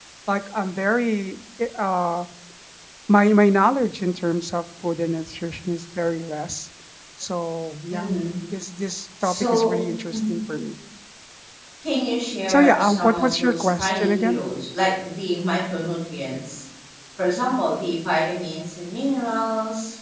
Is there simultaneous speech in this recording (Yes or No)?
Yes